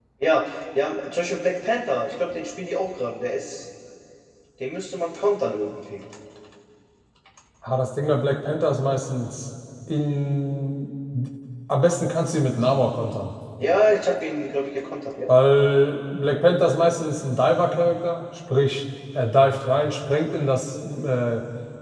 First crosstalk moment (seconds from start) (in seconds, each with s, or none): none